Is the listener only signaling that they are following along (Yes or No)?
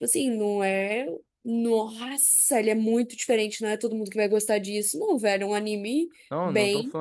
No